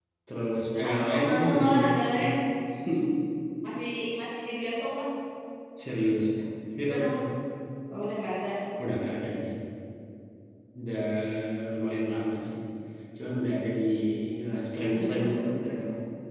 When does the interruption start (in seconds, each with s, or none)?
0.9 s